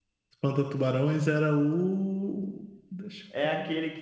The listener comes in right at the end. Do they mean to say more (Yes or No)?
Yes